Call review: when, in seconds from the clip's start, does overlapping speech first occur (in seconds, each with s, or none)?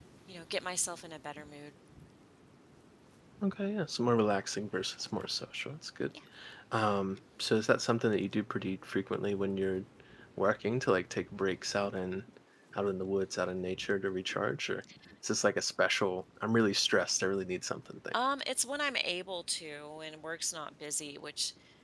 none